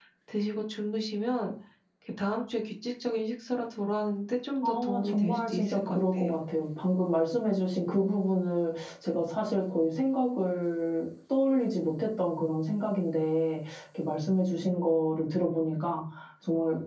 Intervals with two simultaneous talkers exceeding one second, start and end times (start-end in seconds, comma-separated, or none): 4.6-6.4